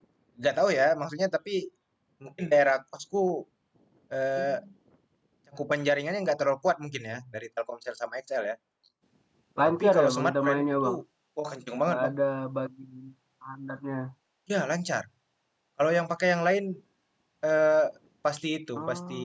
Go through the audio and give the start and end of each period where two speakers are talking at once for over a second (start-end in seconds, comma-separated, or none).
9.7-10.9